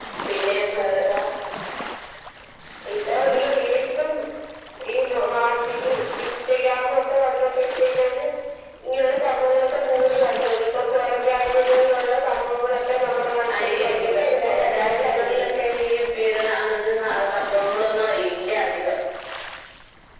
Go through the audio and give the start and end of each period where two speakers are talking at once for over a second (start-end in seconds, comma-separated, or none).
13.6-15.4